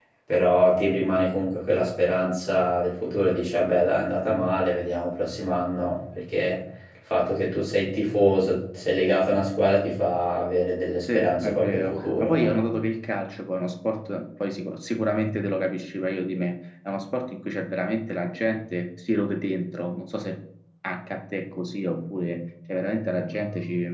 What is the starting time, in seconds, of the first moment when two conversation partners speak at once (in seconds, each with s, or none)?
11.0 s